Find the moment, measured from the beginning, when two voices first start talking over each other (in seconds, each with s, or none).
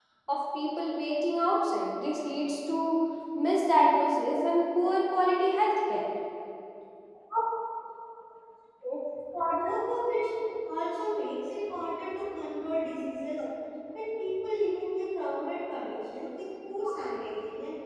none